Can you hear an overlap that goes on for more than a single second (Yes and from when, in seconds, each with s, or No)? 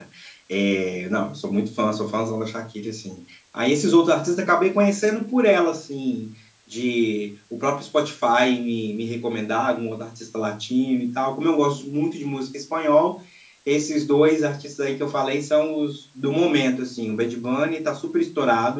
No